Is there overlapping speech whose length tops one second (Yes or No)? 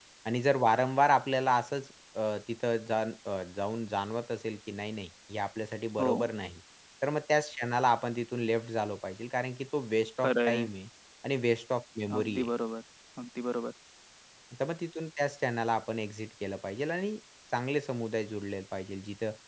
No